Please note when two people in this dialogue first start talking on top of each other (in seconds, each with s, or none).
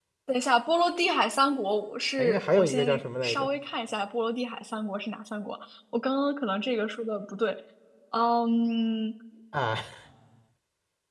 2.2 s